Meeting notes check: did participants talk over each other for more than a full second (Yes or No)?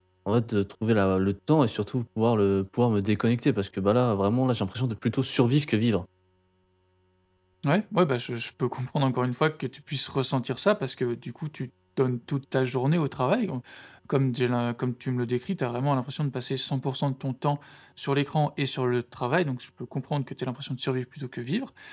No